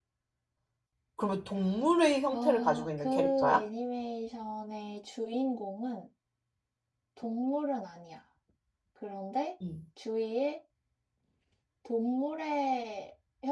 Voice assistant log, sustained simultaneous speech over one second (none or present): present